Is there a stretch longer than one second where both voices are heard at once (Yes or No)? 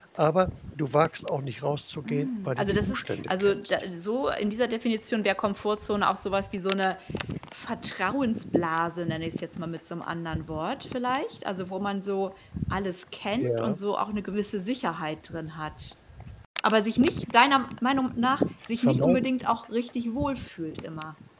Yes